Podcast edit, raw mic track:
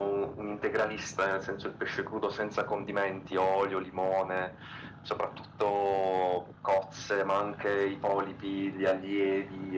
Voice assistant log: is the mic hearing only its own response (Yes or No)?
Yes